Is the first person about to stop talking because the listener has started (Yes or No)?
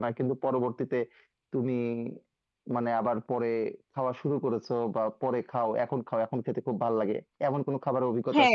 Yes